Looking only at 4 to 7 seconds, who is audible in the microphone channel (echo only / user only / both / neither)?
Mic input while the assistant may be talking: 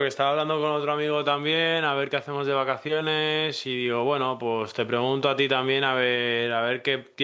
user only